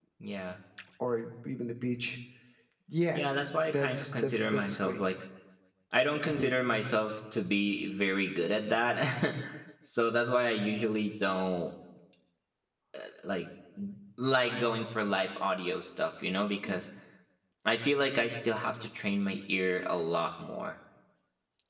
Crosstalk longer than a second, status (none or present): present